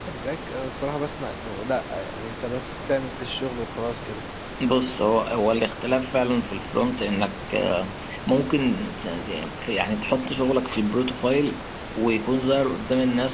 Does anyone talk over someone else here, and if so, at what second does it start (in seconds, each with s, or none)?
none